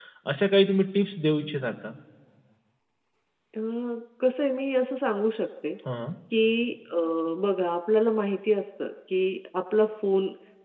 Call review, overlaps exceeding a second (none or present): none